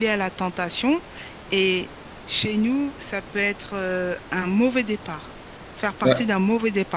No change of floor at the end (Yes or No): Yes